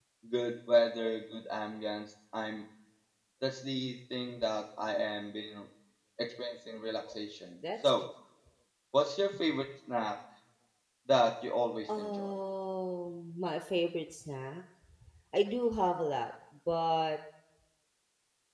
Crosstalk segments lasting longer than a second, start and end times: none

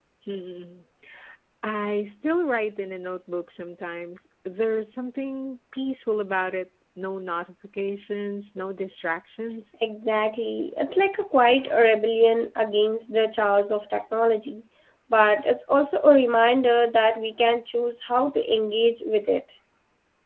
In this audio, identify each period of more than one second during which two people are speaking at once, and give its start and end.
none

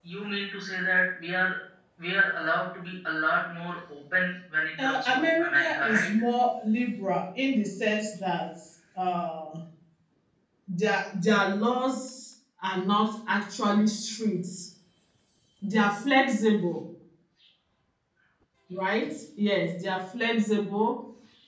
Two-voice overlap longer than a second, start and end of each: 4.8-6.1

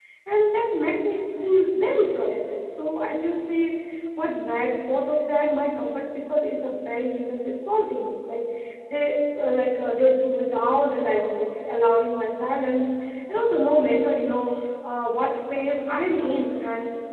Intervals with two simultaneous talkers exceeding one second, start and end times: none

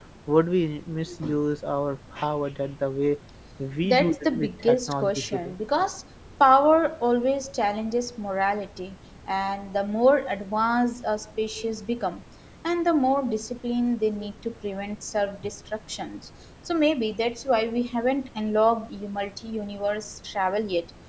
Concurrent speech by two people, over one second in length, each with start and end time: 3.8-5.5

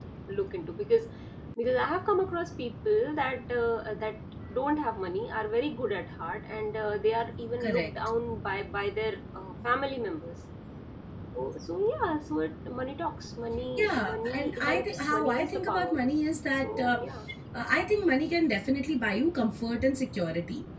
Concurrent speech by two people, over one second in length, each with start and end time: 13.8-15.9

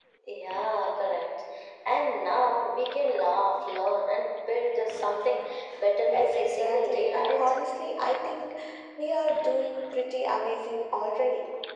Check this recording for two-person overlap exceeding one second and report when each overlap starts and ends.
6.1-7.5

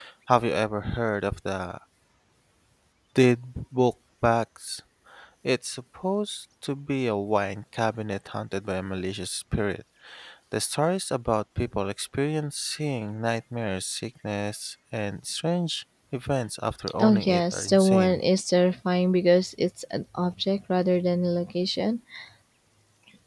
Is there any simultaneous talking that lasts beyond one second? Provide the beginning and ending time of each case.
17.0-18.2

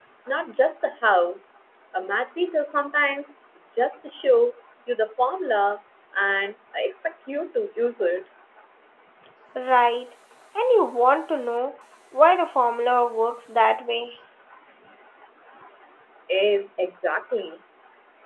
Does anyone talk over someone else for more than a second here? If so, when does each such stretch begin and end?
none

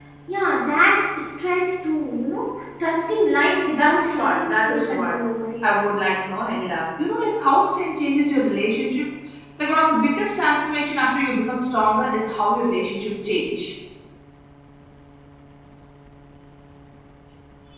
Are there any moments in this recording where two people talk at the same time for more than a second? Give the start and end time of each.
3.7-5.2

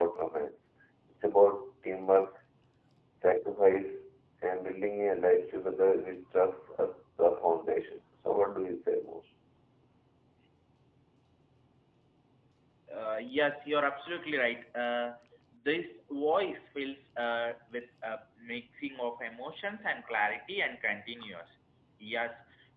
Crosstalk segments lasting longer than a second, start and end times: none

